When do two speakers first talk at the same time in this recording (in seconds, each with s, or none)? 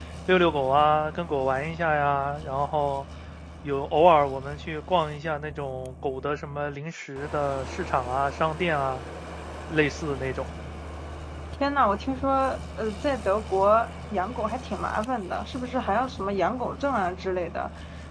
none